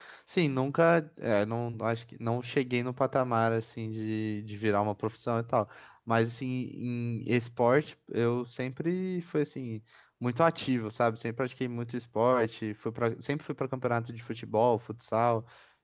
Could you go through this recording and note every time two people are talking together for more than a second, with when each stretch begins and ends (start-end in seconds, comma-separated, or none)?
none